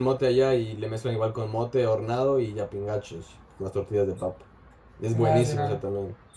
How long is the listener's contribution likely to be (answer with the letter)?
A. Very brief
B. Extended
B